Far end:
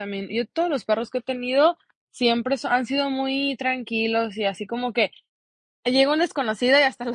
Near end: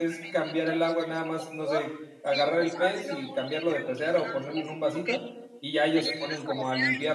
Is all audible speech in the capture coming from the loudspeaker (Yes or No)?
No